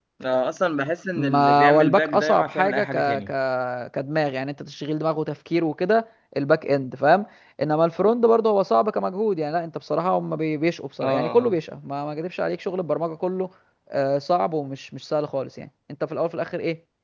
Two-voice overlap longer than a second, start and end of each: 1.2-3.3

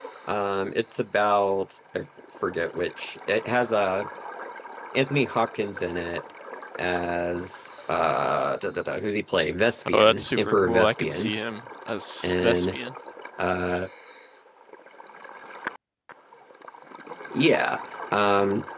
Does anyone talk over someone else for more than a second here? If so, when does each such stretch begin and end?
9.9-11.3

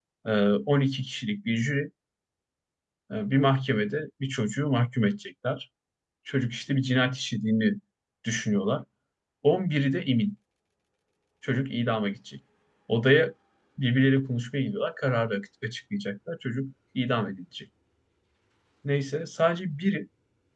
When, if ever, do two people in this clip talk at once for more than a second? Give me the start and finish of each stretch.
none

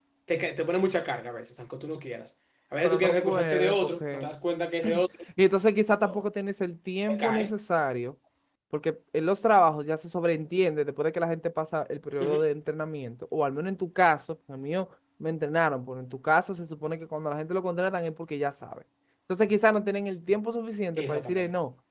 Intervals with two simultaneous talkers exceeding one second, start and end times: 2.8-4.3

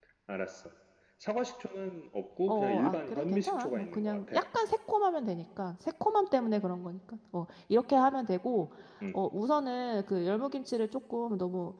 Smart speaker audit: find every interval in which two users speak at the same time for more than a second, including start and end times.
2.5-4.4

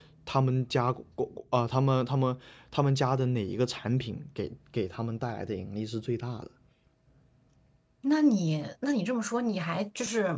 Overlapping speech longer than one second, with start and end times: none

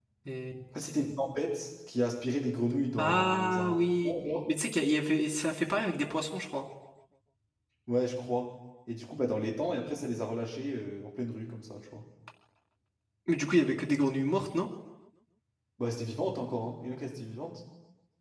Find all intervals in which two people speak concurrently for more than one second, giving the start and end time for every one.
3.0-4.5

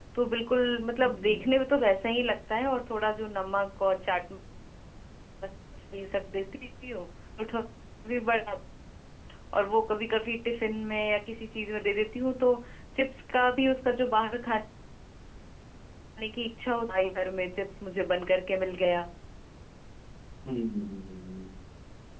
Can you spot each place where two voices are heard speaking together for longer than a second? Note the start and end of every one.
none

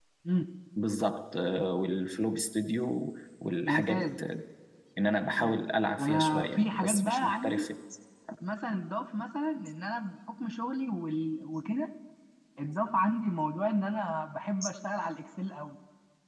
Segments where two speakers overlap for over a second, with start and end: 6.0-7.7

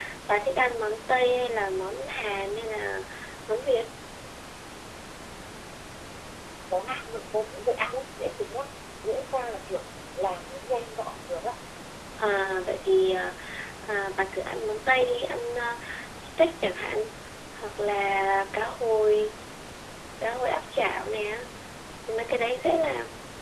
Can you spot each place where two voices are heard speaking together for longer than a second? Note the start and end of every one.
none

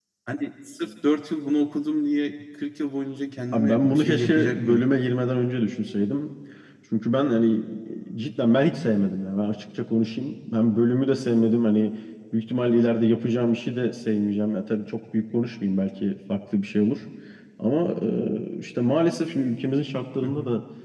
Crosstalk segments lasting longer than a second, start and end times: 3.5-4.8

